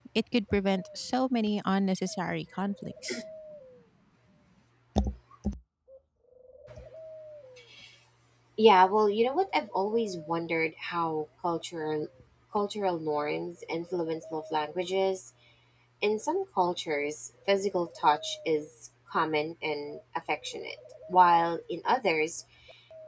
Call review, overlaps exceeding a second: none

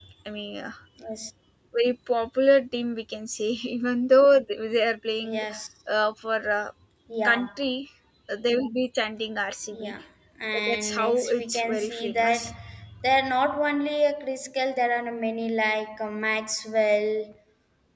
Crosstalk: present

